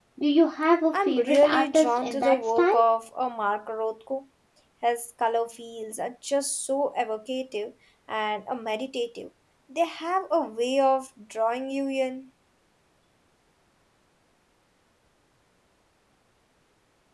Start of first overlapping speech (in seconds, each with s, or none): 1.0 s